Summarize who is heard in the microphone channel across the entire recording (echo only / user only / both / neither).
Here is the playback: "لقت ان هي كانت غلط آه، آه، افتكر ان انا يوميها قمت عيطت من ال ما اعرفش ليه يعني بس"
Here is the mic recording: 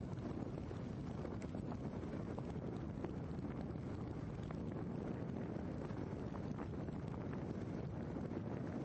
neither